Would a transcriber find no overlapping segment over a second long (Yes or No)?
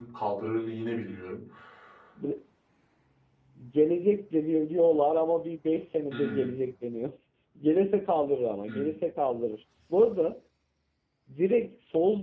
Yes